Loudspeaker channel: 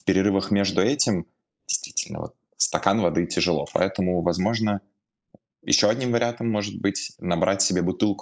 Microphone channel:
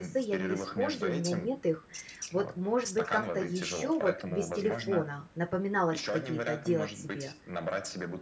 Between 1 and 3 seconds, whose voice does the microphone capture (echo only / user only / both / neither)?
both